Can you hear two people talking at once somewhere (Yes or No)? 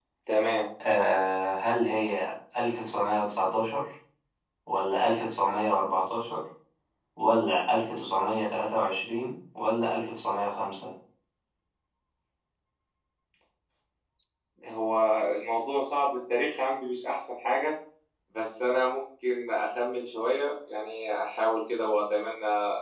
No